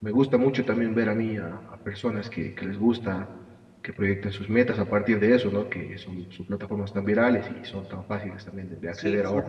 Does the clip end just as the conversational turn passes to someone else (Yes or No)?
Yes